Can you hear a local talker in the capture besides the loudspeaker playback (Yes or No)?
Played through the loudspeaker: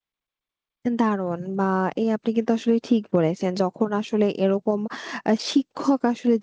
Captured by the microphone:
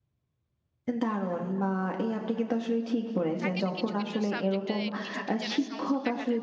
Yes